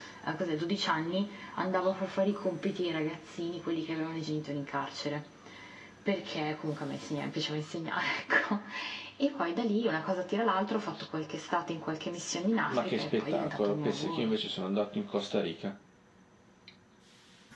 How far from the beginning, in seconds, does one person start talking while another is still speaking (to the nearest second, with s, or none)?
13 s